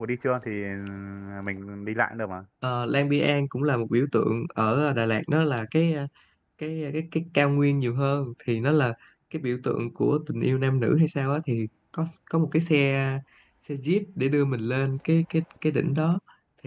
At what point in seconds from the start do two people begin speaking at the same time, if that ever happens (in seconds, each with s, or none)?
none